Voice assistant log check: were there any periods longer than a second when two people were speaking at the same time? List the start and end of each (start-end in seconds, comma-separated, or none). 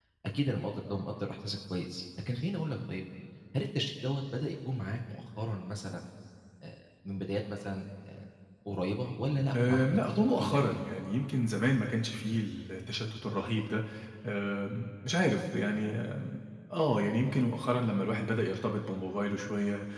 9.6-10.8